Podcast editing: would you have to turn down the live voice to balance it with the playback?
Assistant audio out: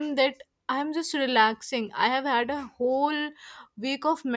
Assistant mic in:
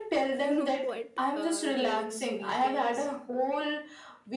No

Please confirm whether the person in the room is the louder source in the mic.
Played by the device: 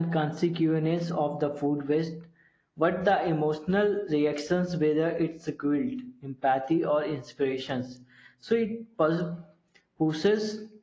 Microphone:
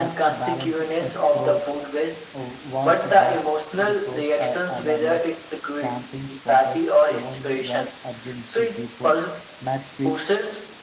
No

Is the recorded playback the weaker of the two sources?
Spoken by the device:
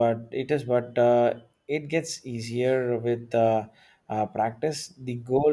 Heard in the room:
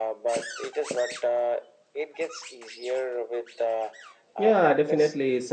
Yes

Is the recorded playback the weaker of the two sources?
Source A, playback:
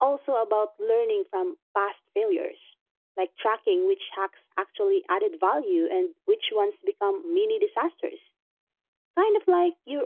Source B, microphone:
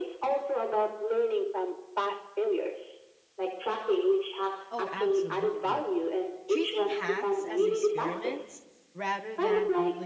No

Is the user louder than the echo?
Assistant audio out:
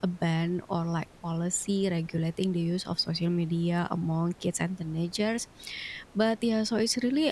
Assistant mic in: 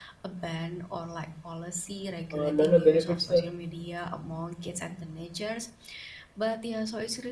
Yes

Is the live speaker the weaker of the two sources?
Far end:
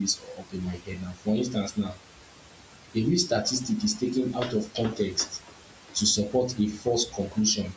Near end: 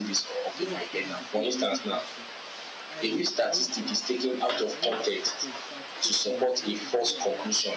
Yes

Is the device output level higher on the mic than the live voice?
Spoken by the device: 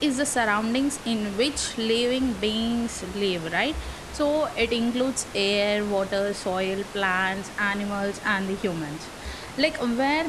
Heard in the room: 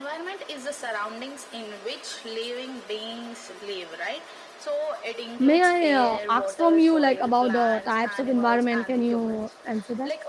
No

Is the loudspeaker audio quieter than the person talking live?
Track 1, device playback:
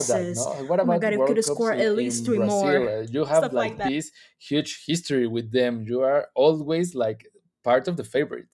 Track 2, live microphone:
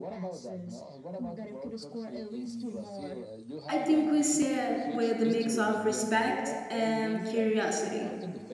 Yes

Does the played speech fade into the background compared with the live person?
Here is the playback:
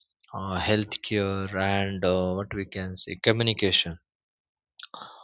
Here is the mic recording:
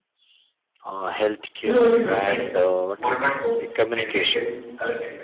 Yes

